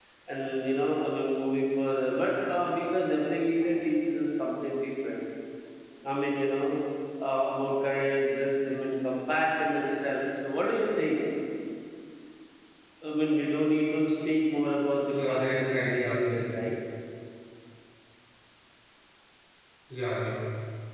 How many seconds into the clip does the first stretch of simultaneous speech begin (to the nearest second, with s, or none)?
15 s